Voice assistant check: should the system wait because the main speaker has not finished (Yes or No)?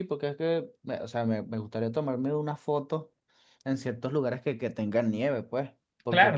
No